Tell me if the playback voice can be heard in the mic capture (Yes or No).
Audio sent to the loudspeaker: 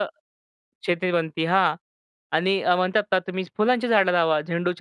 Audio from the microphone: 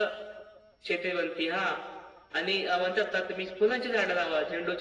Yes